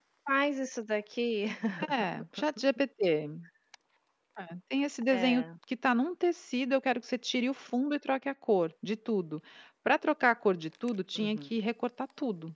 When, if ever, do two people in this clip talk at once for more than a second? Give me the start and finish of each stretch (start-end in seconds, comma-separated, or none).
none